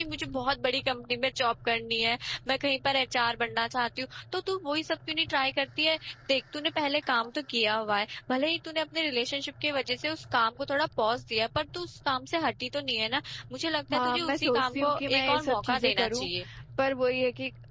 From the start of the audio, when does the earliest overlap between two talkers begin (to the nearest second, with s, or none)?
14 s